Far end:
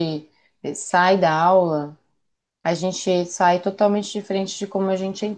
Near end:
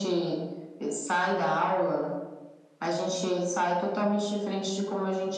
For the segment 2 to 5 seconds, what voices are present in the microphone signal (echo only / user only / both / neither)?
echo only